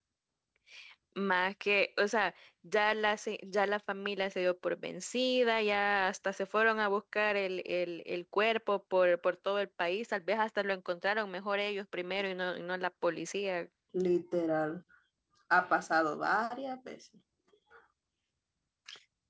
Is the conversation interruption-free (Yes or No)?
Yes